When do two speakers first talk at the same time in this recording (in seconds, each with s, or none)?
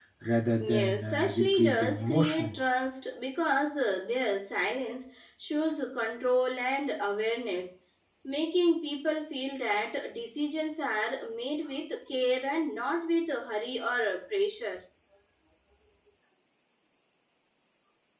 0.5 s